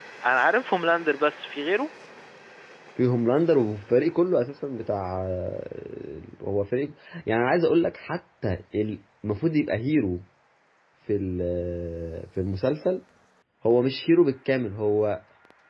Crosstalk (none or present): none